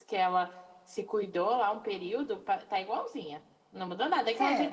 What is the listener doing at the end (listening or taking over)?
listening